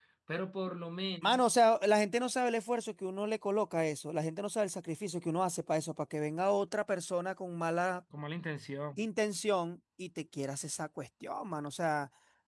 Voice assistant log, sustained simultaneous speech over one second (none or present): none